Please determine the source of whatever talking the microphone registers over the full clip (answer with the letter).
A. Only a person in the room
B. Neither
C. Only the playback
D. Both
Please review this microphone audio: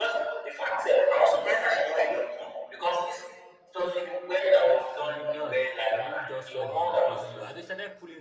D